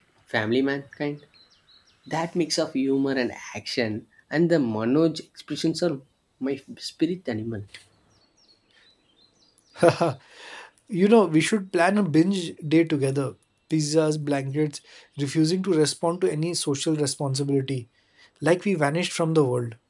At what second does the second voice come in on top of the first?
none

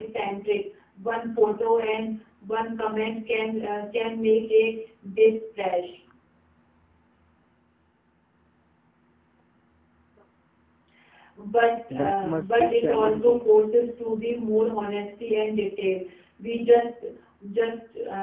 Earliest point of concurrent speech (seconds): 11.9 s

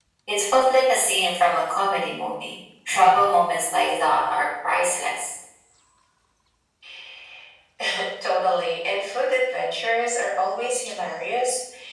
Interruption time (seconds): none

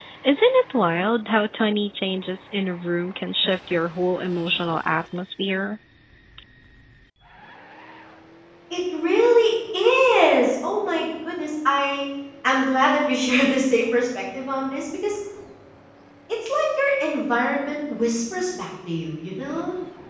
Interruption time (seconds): none

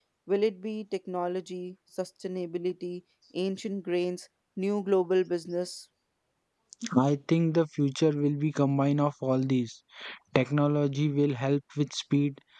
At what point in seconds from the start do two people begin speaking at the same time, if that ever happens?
none

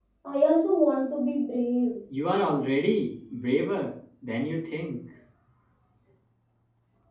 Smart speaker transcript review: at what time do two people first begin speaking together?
none

